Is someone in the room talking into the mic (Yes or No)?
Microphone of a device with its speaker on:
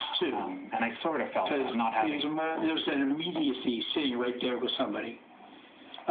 No